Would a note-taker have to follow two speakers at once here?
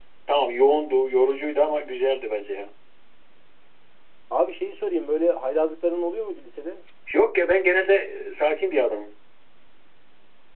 No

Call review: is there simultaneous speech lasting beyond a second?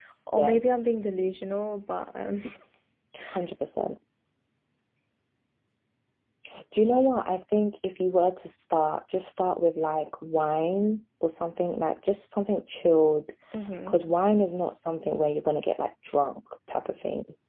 No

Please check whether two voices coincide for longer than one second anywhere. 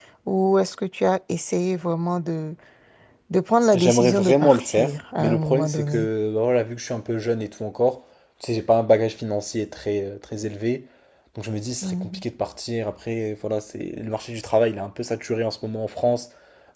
Yes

